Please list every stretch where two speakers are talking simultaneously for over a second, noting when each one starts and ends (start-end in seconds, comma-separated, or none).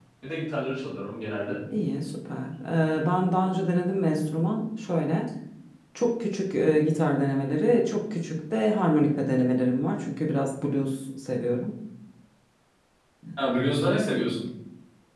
none